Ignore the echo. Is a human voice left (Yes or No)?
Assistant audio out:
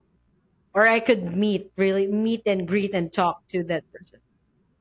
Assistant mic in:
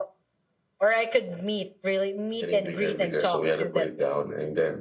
Yes